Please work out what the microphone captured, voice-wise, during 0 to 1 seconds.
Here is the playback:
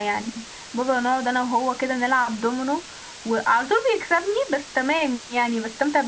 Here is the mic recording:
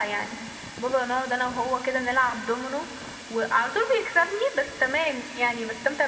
echo only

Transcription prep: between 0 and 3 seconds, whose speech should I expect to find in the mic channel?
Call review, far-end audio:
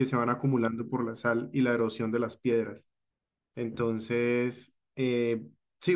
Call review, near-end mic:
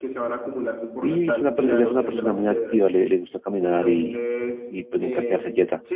both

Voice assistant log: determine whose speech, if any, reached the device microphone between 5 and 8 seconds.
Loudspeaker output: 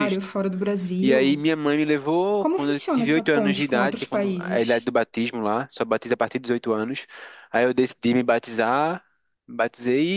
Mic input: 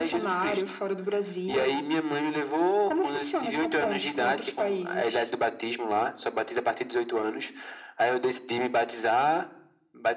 echo only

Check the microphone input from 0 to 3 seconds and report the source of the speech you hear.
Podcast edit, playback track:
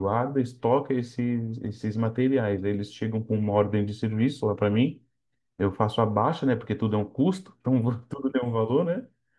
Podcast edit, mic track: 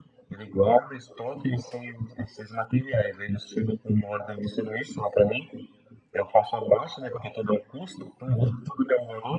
echo only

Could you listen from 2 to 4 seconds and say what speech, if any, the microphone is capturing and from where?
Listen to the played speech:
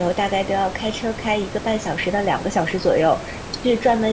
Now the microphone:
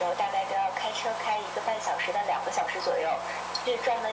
echo only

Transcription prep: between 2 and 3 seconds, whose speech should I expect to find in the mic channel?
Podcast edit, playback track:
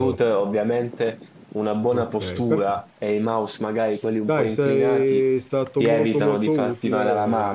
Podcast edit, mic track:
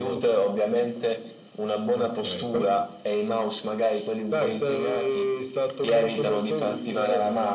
echo only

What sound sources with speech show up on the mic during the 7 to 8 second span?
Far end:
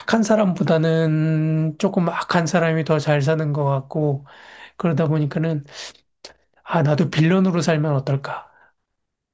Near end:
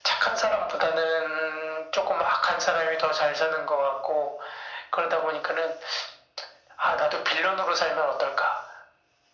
echo only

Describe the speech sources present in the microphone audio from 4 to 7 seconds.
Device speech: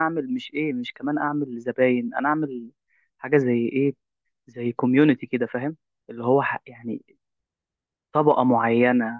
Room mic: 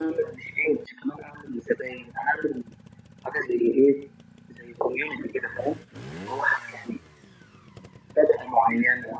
echo only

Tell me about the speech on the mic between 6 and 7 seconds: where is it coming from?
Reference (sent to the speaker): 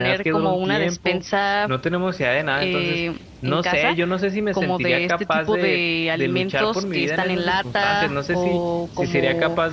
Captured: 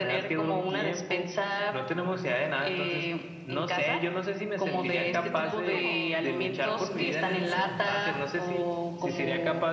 both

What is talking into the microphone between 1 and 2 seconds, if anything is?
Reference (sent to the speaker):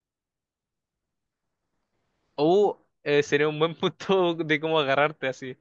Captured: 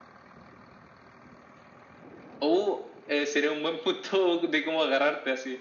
neither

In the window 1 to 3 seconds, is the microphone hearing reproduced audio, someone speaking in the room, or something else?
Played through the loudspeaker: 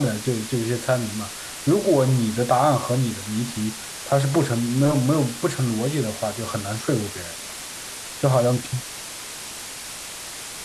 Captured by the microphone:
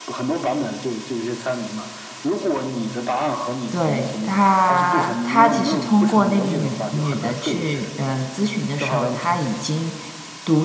echo only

